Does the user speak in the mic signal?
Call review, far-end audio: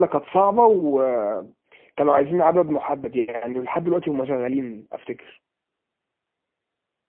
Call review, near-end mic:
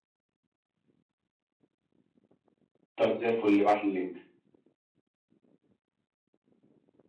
Yes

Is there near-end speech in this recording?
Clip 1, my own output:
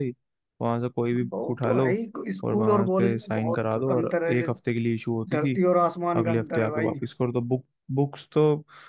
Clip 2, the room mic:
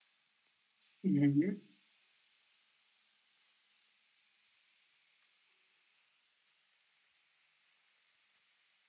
Yes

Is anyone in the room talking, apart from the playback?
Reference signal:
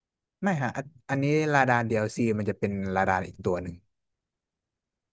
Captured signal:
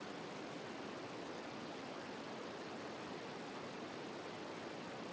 No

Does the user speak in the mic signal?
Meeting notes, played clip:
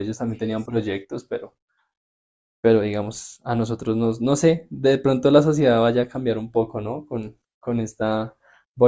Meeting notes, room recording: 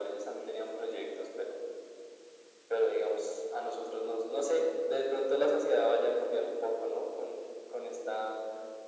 No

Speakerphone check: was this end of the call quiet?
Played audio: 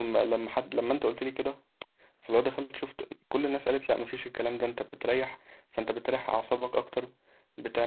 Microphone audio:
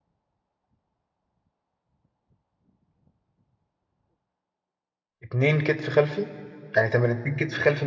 No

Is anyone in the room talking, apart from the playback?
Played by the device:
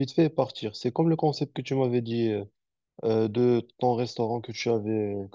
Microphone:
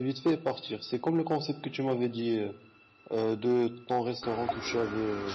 No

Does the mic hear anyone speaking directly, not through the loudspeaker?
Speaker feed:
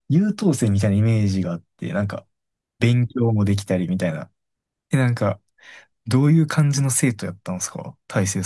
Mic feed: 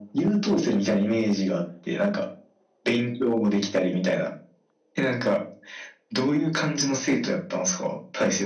No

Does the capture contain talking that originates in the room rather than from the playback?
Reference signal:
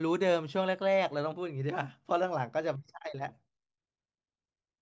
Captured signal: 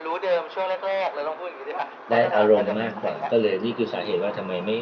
Yes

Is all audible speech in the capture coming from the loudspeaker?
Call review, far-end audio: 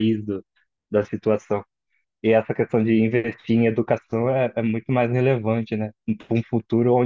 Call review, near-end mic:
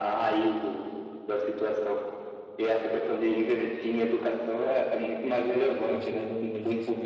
No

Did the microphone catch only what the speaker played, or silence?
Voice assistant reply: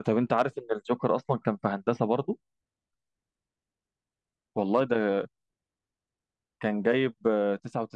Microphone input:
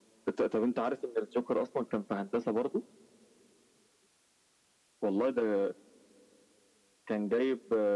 Yes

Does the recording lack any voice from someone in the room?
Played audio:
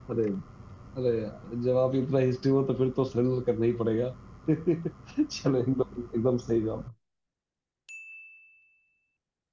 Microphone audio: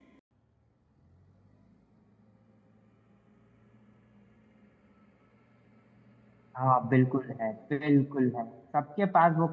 No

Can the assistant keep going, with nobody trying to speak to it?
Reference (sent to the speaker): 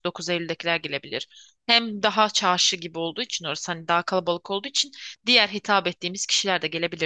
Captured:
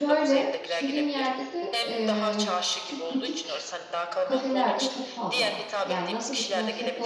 No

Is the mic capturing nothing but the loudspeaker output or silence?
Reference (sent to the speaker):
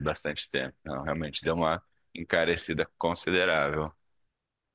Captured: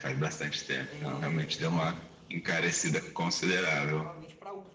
No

